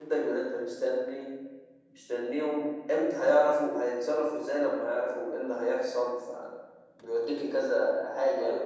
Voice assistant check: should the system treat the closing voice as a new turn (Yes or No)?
Yes